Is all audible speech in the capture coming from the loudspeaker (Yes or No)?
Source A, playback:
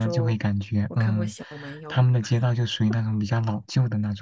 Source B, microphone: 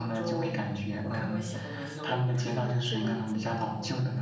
No